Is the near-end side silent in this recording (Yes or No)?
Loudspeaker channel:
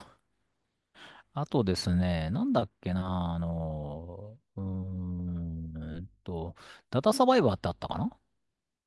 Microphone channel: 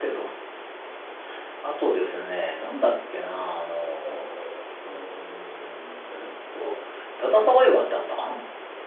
No